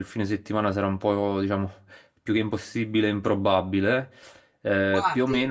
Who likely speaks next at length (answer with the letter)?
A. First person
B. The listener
A